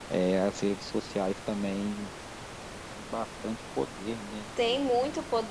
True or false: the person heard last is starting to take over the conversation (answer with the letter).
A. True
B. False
A